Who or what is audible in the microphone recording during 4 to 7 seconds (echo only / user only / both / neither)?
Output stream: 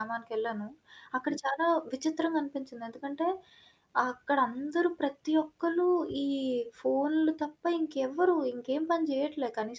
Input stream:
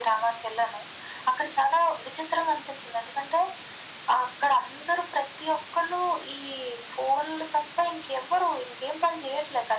echo only